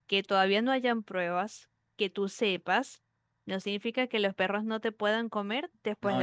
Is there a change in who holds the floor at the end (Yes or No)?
Yes